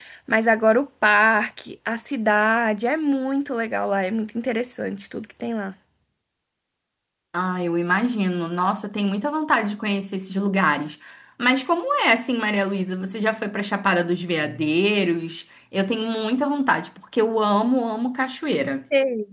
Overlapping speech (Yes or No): No